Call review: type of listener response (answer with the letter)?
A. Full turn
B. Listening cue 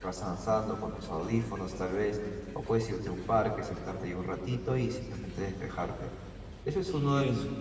A